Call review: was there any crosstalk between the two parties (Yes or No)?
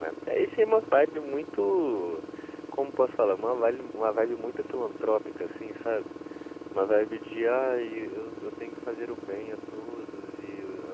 No